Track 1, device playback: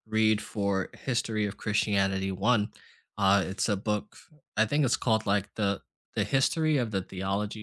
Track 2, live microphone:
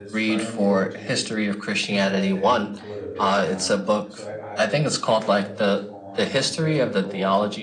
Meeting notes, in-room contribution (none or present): present